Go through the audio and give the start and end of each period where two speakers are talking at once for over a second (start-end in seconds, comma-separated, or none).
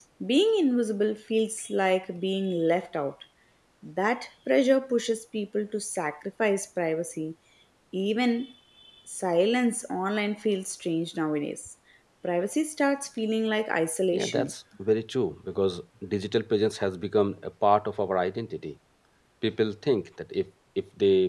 none